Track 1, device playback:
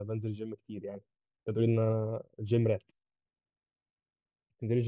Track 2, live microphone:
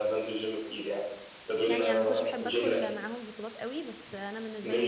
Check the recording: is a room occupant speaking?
Yes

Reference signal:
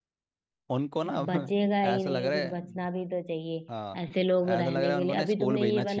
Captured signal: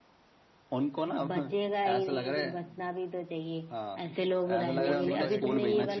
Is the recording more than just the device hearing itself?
Yes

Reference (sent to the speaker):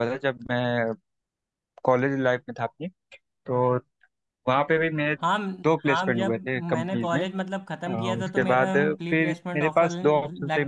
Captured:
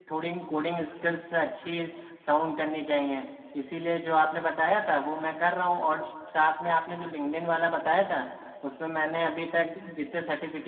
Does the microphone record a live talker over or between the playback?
Yes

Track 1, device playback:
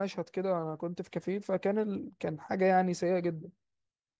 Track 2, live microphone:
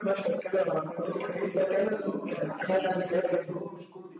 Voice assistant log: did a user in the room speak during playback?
Yes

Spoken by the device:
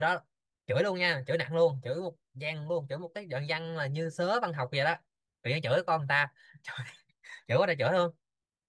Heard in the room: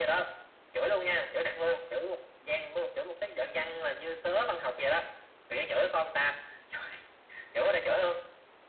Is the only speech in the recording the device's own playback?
Yes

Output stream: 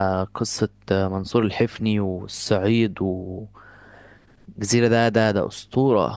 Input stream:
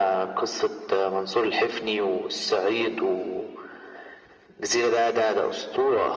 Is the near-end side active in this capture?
No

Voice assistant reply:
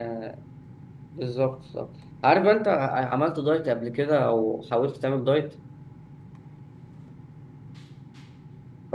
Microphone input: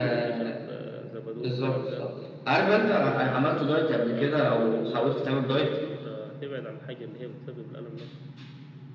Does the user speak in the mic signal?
Yes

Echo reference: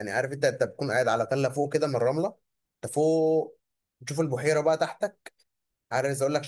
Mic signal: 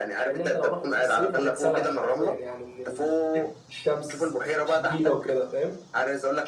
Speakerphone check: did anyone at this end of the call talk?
Yes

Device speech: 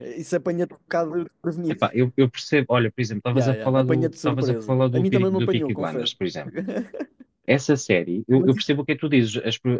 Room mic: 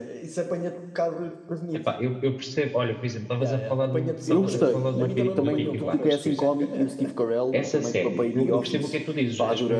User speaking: Yes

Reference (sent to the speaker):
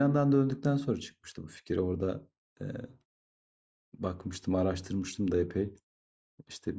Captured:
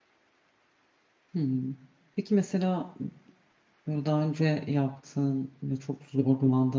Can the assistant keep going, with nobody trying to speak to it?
No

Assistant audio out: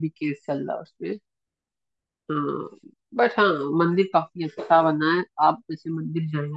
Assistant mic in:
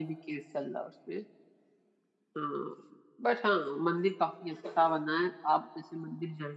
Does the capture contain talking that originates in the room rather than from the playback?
No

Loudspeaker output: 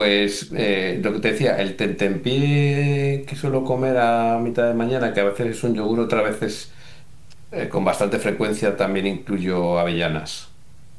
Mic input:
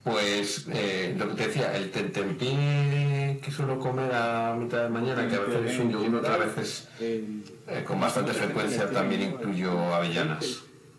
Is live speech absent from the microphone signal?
No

